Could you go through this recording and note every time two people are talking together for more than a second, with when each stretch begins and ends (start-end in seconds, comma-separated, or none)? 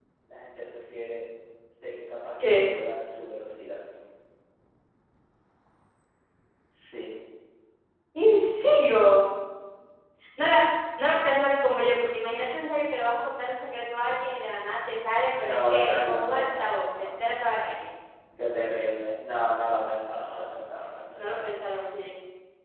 15.4-17.1